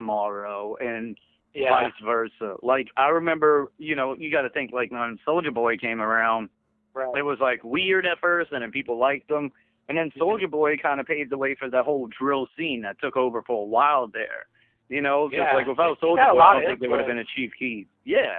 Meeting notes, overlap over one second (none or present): present